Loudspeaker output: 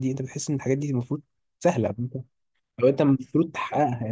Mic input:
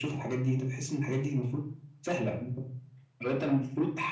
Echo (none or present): present